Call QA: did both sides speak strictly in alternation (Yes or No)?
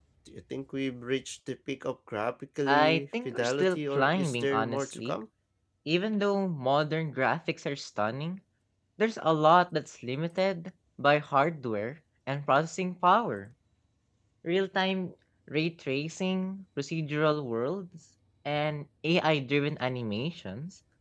No